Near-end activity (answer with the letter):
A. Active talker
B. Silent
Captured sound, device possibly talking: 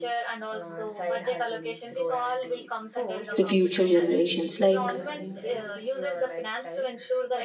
A